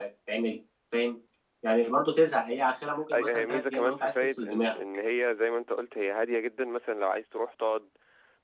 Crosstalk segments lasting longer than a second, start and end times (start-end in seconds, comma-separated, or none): 3.1-4.8